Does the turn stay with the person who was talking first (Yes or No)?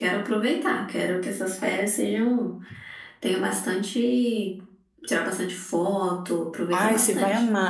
No